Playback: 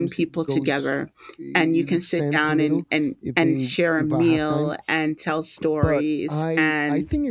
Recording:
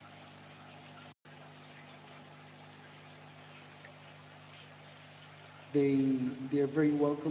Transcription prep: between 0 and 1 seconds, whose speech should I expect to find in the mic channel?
neither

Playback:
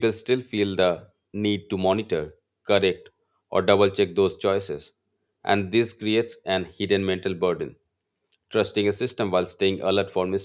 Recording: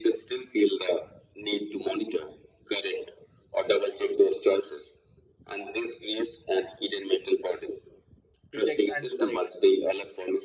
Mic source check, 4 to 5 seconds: echo only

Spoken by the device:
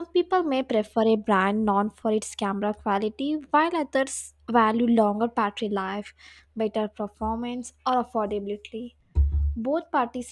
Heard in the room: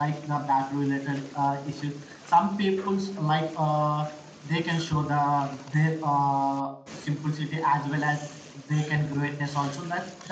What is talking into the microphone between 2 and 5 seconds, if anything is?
user only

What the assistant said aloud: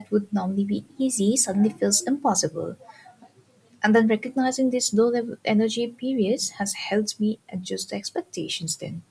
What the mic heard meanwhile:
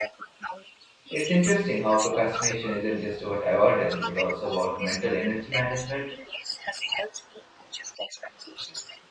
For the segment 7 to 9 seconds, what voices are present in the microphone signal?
echo only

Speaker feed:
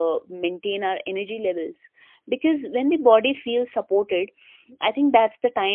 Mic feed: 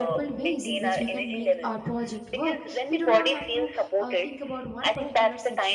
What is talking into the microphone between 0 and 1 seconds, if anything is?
both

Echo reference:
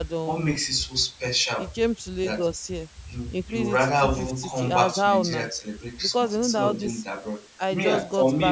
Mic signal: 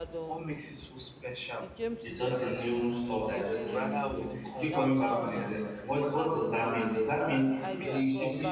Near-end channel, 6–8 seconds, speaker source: both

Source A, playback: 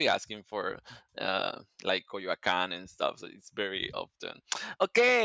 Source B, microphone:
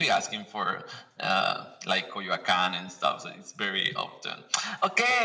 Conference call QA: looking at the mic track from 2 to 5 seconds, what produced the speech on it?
echo only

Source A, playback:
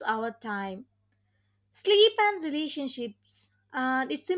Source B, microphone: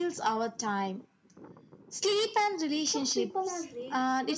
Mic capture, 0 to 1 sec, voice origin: echo only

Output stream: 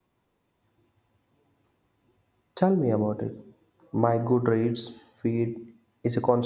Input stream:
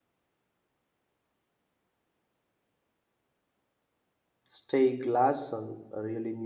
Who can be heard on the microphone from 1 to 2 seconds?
neither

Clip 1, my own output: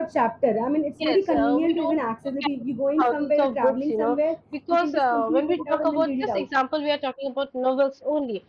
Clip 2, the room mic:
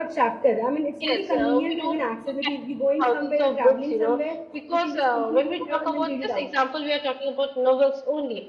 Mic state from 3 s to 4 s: echo only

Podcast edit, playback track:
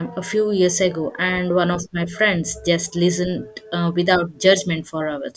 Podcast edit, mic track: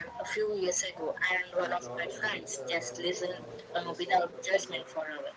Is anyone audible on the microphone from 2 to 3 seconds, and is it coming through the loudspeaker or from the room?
both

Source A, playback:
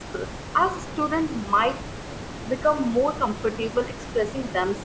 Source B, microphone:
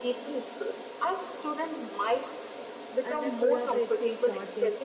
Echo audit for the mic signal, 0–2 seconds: echo only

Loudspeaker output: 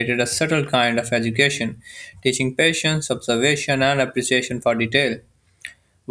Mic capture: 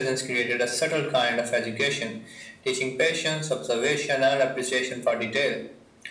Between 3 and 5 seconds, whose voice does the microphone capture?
echo only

